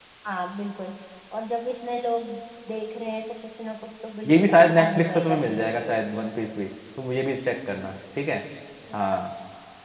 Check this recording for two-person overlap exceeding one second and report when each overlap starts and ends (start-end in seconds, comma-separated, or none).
4.3-6.0